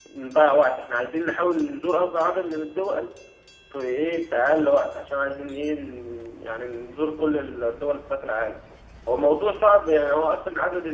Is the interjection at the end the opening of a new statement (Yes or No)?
No